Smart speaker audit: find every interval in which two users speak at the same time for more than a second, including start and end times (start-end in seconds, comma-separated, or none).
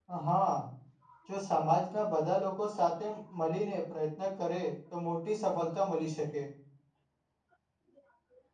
none